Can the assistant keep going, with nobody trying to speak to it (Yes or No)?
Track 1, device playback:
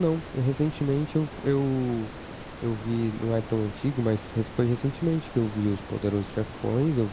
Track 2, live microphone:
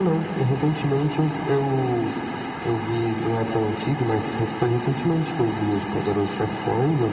Yes